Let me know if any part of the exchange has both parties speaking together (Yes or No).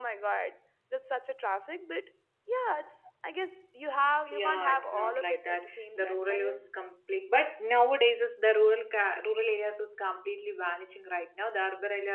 Yes